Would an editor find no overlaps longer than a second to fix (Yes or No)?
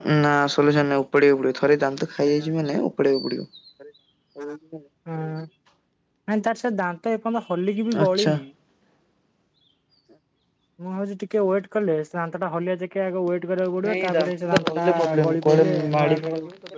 No